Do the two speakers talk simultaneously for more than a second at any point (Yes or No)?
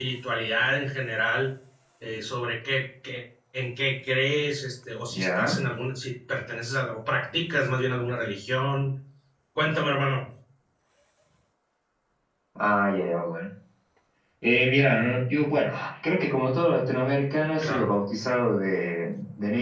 No